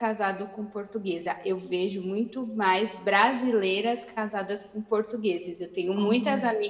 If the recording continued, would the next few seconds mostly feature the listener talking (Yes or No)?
No